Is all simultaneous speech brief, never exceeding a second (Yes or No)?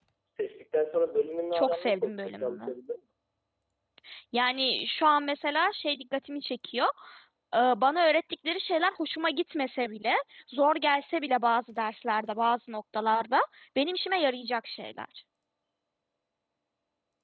No